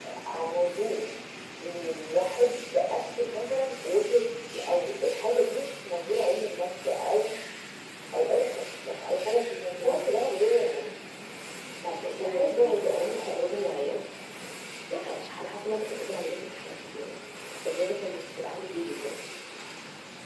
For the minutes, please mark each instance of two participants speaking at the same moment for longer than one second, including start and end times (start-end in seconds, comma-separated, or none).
12.2-13.4